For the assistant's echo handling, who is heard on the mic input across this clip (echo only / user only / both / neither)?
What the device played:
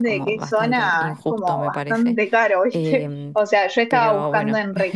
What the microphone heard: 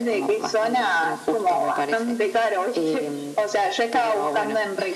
echo only